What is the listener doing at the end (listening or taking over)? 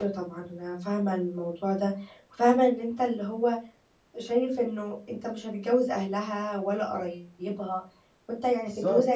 listening